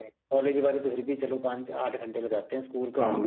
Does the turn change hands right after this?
Yes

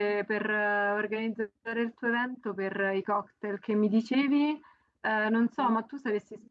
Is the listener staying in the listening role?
Yes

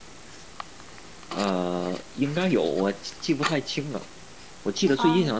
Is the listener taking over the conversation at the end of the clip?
No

